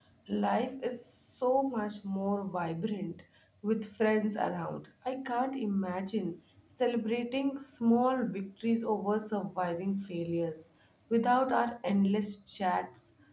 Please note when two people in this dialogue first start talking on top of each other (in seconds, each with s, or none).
none